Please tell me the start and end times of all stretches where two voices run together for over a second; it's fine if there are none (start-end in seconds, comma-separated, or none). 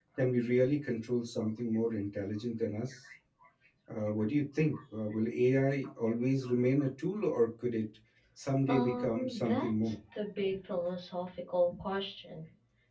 8.7-9.9